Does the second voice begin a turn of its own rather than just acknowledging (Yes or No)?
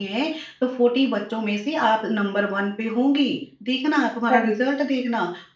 No